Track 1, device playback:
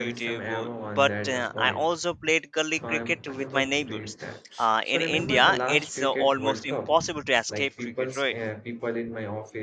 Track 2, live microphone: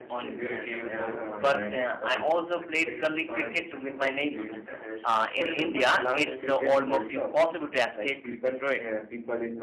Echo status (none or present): present